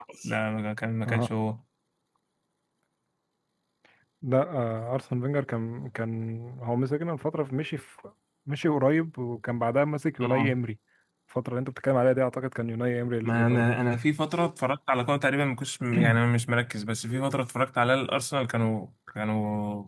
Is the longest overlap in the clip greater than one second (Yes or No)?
No